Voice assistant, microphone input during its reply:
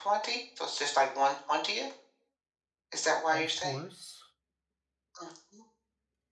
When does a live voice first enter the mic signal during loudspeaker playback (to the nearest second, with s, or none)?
3 s